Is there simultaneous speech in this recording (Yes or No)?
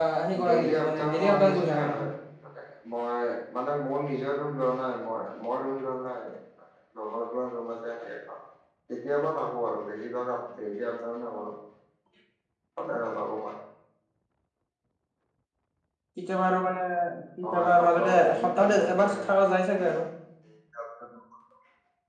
Yes